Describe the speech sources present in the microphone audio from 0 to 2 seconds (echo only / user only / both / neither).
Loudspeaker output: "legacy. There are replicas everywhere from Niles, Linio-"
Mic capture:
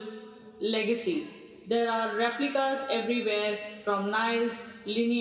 echo only